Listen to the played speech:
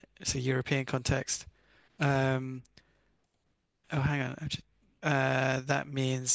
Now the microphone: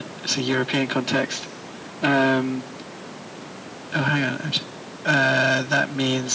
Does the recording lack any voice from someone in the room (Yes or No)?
Yes